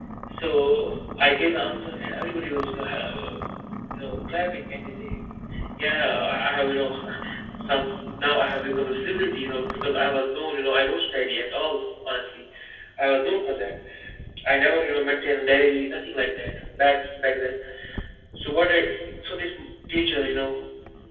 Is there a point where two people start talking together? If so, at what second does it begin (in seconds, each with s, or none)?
none